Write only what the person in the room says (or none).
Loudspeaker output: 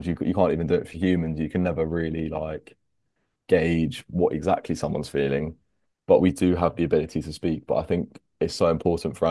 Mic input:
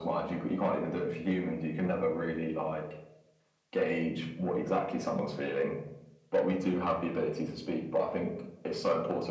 none